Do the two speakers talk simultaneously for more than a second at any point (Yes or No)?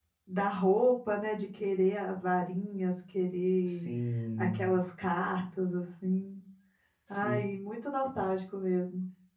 No